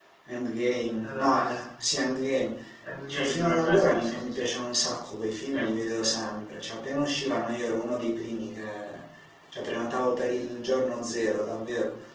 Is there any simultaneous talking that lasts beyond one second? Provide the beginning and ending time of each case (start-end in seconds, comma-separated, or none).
3.1-4.5